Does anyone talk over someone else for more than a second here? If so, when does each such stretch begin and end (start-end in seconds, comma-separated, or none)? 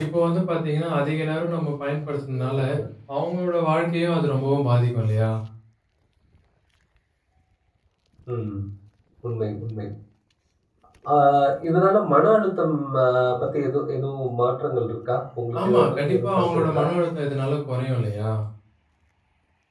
15.6-16.8